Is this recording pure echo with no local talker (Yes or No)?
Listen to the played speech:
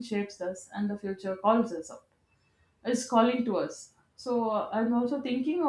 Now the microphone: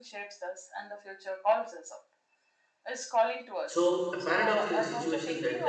No